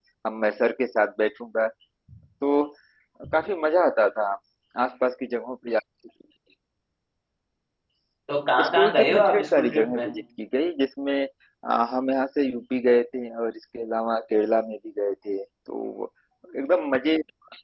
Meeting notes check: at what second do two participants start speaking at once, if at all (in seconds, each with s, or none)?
8.6 s